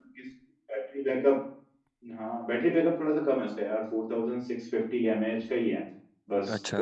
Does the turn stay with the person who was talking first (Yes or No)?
Yes